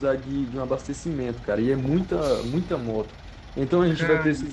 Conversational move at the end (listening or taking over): listening